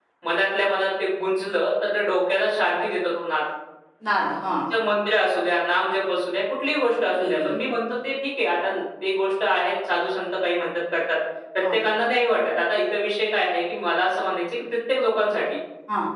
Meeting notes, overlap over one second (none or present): none